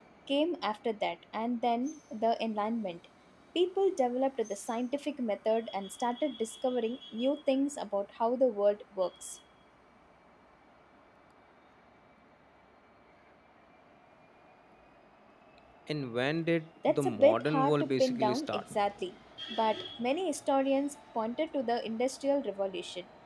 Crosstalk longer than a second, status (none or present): present